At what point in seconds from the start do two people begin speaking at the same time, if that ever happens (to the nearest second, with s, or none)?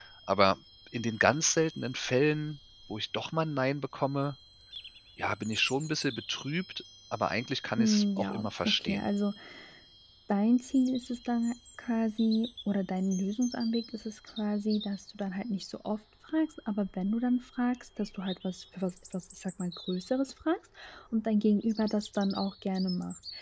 8 s